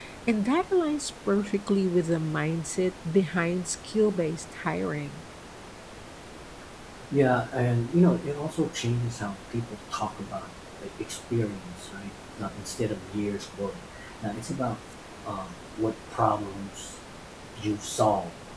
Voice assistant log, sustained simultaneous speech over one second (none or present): none